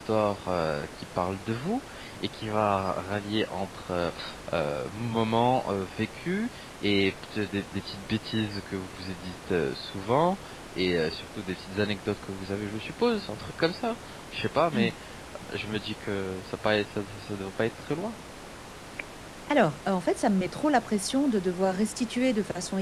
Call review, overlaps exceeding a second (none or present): none